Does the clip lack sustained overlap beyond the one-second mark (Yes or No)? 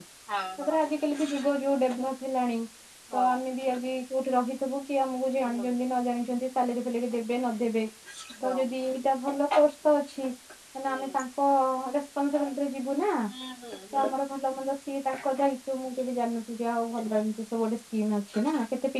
Yes